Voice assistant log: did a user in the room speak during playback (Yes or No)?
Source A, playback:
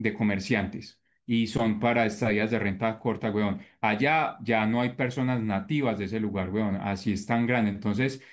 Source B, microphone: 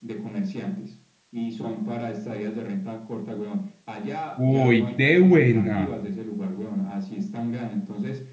Yes